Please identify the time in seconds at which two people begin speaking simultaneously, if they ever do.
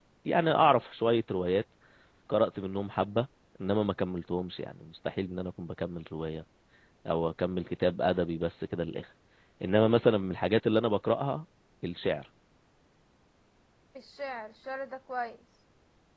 none

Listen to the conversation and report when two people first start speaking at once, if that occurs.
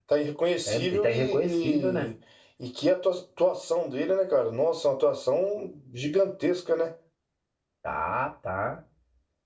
0.7 s

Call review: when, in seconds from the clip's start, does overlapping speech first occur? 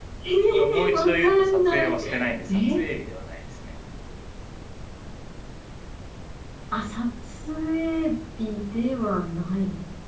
0.6 s

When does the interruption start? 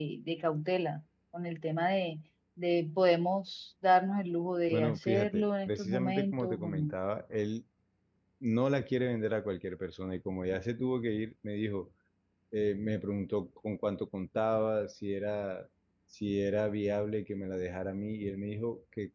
4.7 s

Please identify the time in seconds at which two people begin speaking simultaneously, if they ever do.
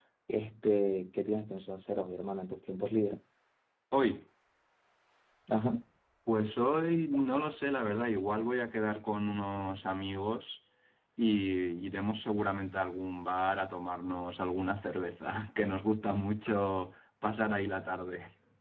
none

